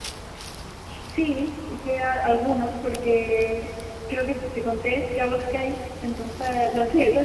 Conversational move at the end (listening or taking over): listening